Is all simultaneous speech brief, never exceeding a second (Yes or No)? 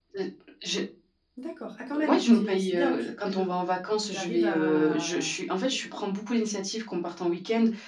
No